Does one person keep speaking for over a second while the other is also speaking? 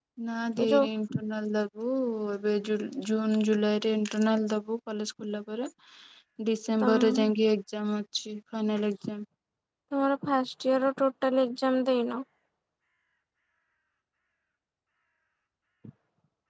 No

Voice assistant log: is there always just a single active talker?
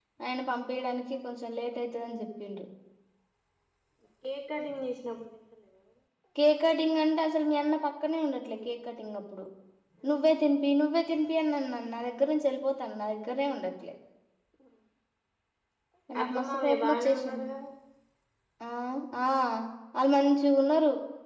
No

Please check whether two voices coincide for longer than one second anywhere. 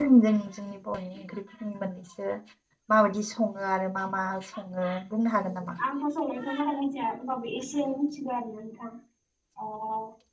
No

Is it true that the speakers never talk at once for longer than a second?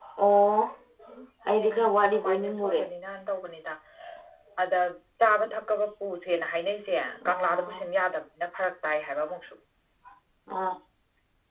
No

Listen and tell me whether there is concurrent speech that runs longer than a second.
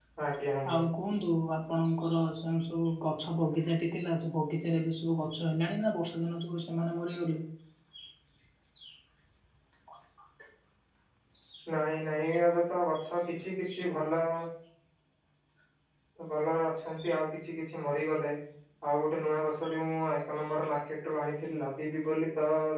No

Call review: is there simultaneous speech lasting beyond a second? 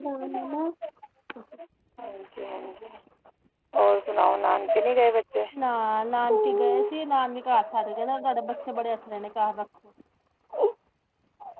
No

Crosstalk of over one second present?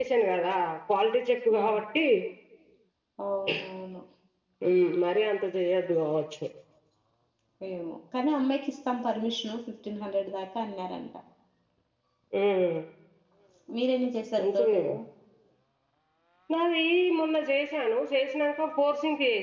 No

